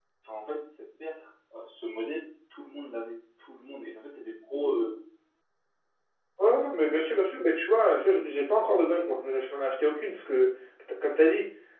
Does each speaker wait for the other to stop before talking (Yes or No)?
Yes